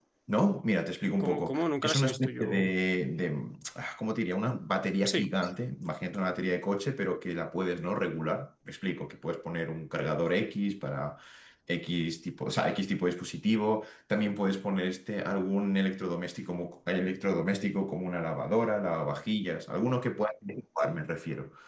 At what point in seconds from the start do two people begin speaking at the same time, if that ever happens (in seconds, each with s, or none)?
1.2 s